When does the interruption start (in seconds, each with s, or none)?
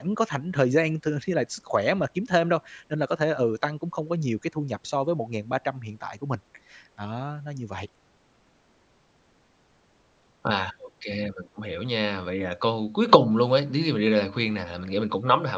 none